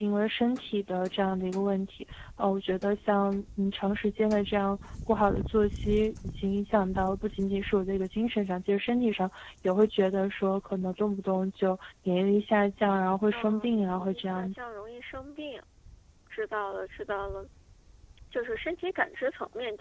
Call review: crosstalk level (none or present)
present